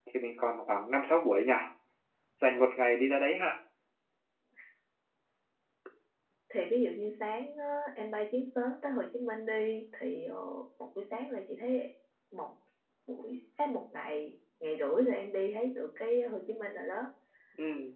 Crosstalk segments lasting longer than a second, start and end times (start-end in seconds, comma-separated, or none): none